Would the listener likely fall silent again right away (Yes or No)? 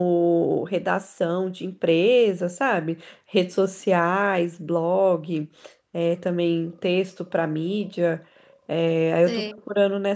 Yes